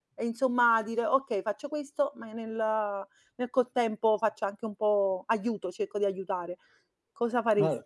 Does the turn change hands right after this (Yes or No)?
Yes